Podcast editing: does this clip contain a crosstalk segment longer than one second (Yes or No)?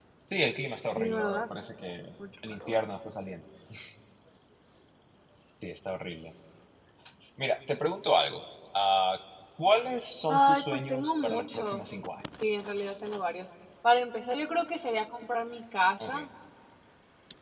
Yes